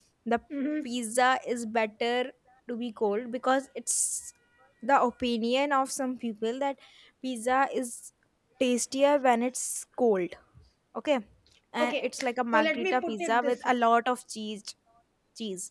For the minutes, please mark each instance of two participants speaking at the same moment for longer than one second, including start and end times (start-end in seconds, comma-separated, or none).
11.8-13.7